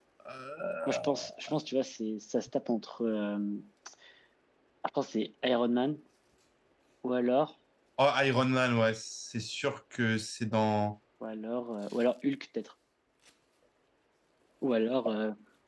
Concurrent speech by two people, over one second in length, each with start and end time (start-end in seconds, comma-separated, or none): none